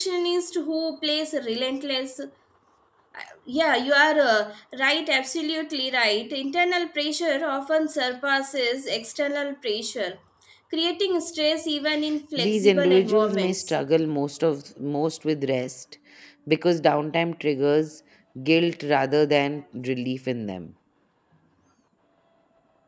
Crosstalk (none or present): present